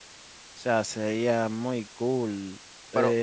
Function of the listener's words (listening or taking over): taking over